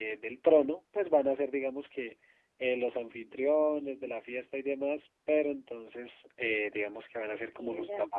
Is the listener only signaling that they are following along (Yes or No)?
Yes